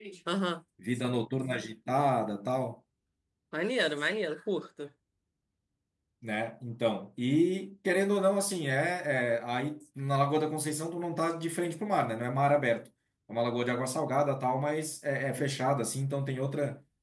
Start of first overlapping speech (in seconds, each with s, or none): none